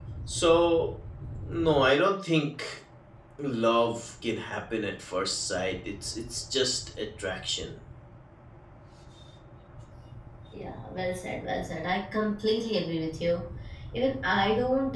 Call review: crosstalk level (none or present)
none